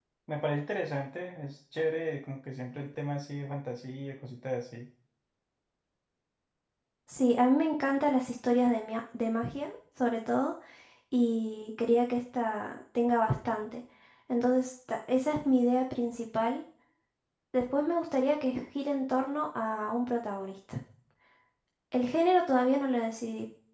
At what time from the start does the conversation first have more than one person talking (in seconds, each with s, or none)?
none